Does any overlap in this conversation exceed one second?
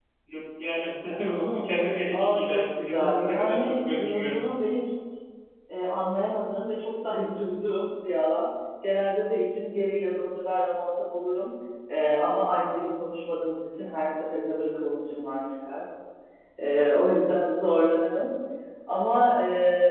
Yes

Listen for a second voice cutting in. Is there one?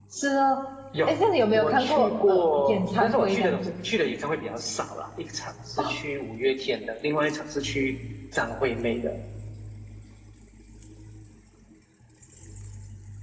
Yes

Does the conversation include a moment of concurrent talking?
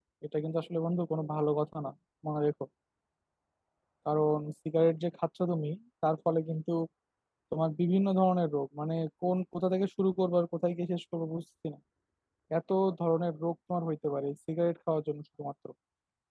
No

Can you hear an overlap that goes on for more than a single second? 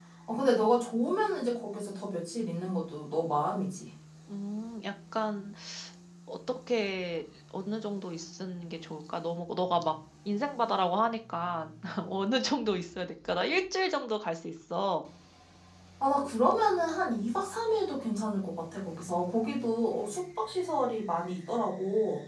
No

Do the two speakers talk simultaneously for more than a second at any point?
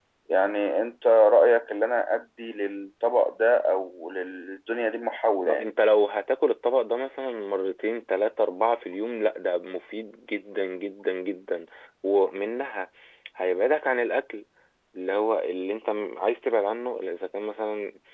No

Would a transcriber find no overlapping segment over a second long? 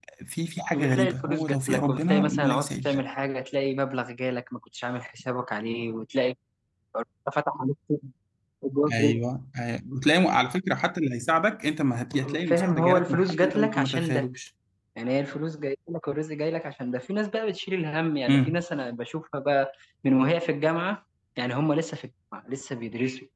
No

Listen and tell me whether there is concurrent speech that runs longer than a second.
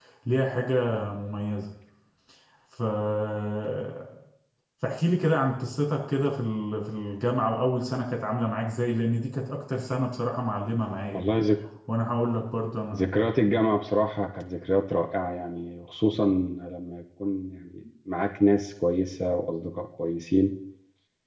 No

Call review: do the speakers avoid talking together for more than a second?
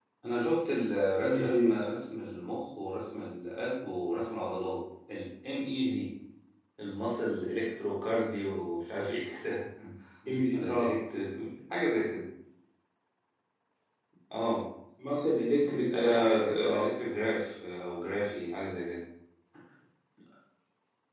No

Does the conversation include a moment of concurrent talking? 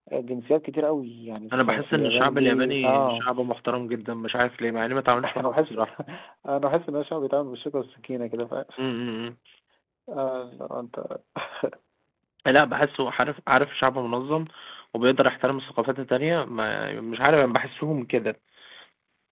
Yes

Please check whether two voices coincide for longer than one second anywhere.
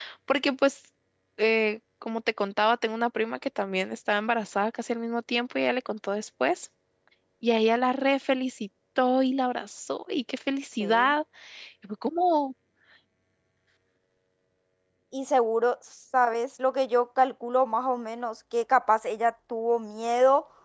No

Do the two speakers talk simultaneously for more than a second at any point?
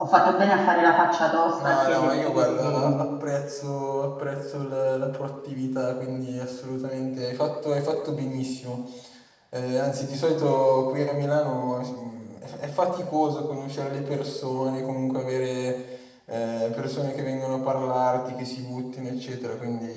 Yes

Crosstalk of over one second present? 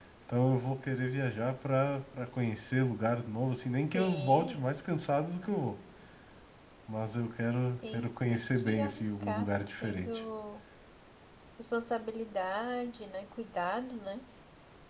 Yes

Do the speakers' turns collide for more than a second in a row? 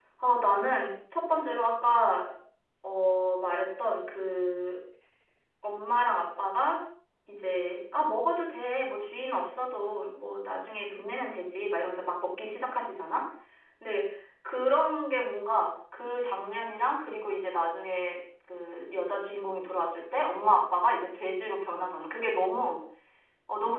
No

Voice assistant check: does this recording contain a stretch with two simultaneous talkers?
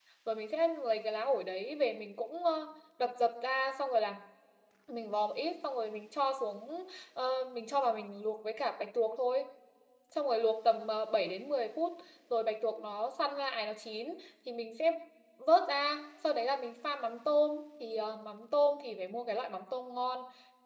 No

